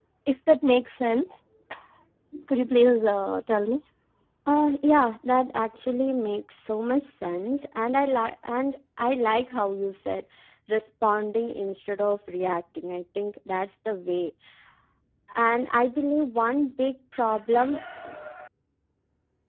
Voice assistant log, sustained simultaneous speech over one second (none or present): none